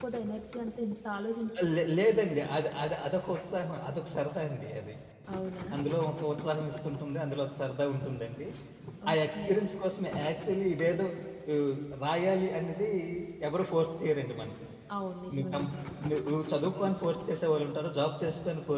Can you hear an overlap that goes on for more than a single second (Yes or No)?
No